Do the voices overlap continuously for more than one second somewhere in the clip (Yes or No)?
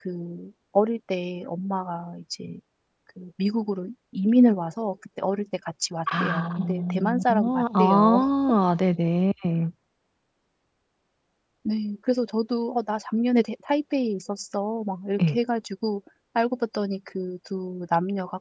Yes